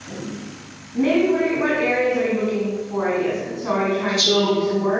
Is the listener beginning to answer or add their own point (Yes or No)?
No